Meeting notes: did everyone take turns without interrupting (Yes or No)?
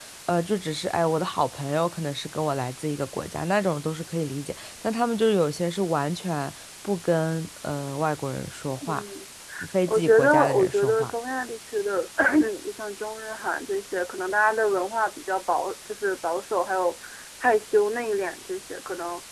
No